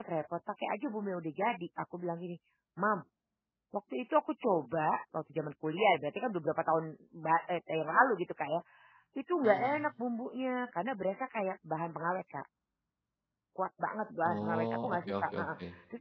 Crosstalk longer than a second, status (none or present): present